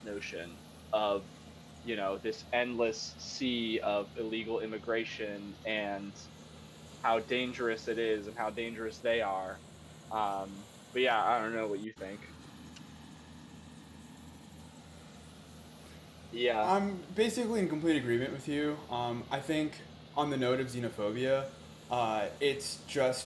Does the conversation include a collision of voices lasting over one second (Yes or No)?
No